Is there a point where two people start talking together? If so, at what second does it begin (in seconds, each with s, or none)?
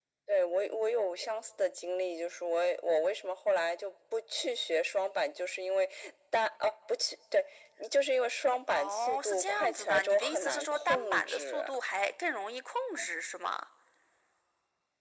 8.7 s